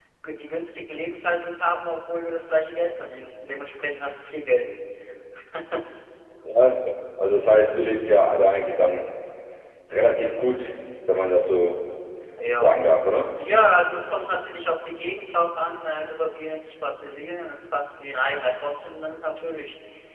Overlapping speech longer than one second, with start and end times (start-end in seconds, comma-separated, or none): none